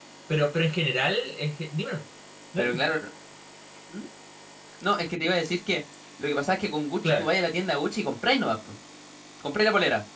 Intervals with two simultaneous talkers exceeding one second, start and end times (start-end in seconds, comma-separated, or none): none